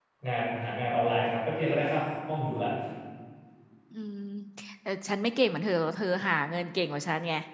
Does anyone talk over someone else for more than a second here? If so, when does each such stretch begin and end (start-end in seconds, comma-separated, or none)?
none